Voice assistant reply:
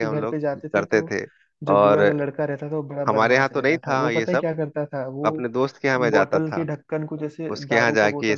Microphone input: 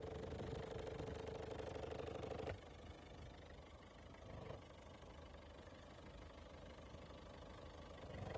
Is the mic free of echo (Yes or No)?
Yes